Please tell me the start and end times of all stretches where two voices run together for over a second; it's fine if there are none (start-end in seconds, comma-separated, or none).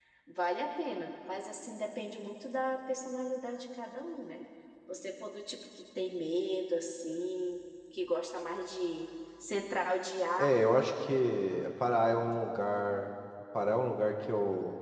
none